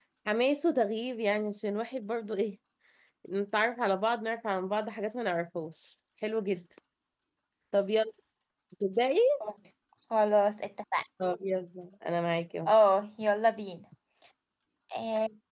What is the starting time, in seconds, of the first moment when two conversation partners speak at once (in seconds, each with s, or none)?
none